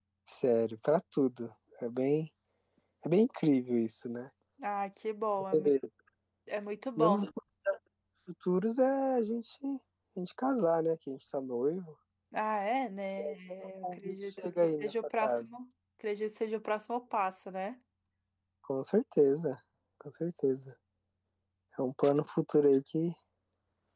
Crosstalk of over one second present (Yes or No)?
Yes